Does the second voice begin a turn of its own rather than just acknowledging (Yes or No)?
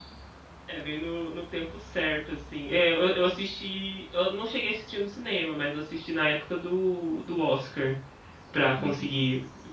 No